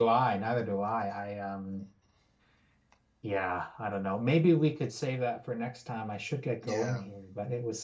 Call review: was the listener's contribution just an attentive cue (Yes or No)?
Yes